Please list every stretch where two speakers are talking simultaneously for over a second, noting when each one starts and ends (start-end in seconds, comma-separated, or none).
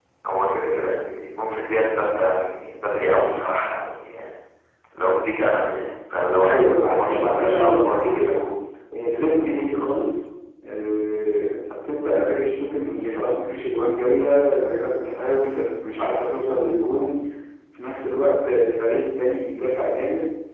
6.4-8.3